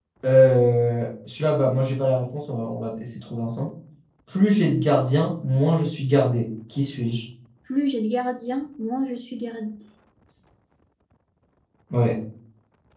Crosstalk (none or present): none